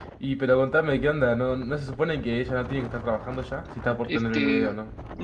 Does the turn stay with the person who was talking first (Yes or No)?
No